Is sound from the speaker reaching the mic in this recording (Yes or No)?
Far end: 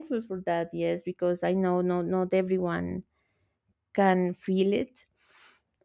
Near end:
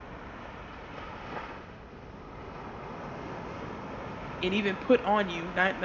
No